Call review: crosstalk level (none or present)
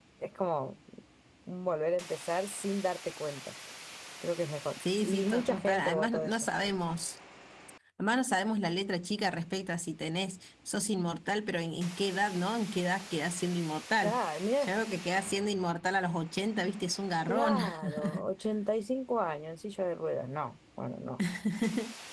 present